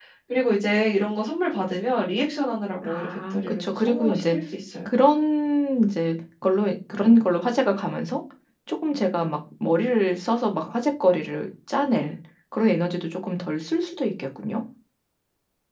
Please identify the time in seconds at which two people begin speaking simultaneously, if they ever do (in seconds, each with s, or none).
2.8 s